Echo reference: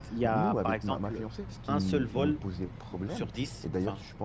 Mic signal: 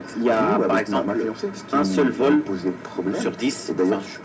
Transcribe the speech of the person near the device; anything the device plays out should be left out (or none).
none